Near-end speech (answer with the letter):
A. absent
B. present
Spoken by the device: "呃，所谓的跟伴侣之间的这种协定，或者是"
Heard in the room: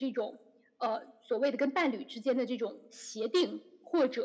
A